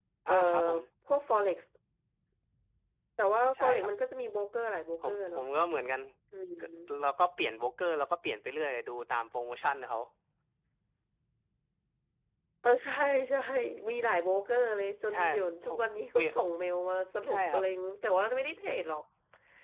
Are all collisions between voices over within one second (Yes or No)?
Yes